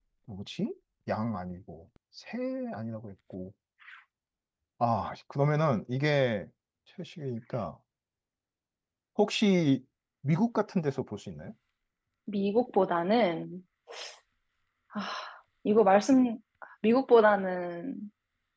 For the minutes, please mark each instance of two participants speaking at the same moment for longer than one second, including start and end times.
none

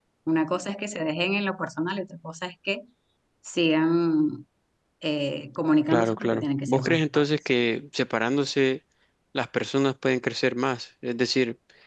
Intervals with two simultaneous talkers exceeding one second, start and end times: 5.9-7.2

